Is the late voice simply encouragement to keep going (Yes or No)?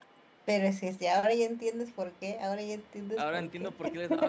No